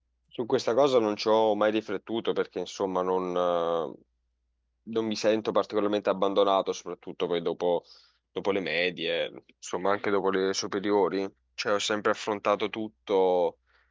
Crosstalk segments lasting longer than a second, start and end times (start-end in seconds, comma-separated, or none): none